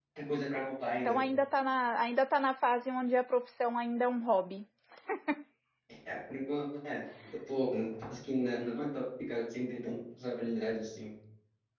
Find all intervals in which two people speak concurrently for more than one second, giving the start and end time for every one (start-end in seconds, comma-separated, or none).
none